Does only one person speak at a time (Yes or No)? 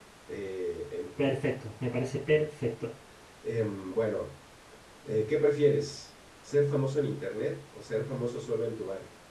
Yes